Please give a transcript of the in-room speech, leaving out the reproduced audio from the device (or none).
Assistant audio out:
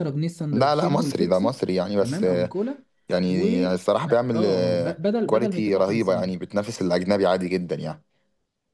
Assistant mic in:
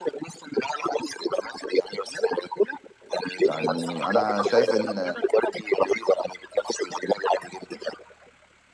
يعني انا شايف ان